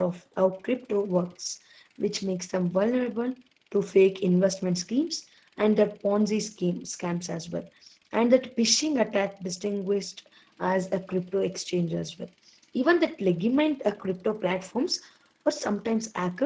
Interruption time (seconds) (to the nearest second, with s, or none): none